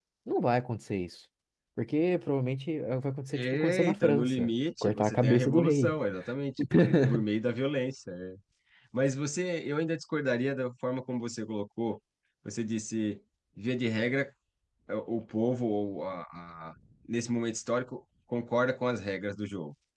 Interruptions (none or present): present